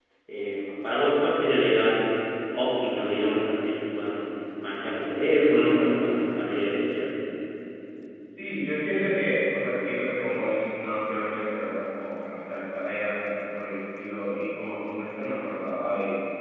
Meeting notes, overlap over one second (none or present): none